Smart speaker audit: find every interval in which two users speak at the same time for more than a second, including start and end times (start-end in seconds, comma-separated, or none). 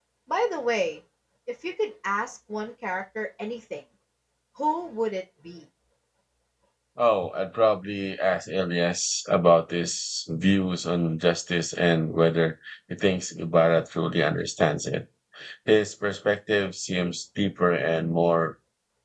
none